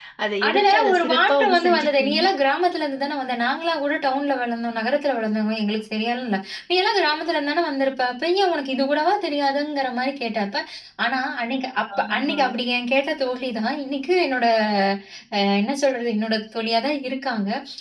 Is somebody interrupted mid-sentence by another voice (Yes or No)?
Yes